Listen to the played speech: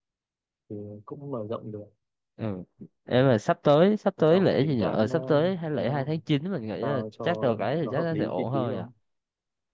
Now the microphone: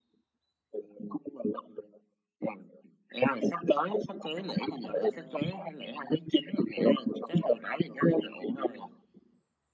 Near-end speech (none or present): none